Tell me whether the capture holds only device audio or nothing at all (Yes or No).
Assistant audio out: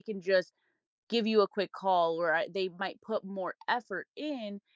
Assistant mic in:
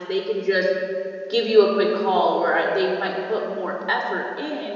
Yes